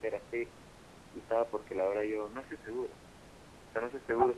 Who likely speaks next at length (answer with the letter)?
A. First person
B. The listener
A